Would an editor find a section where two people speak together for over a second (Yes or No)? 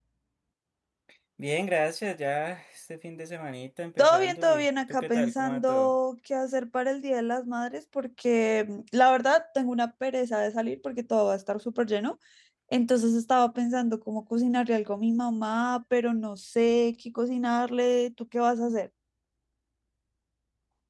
Yes